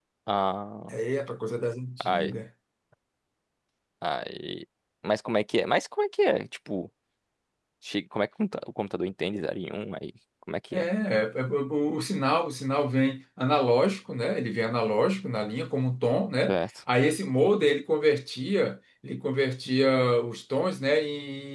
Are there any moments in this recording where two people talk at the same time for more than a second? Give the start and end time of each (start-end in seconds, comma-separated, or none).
none